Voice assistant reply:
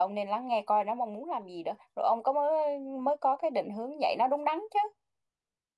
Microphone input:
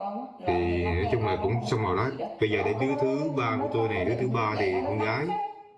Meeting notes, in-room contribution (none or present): present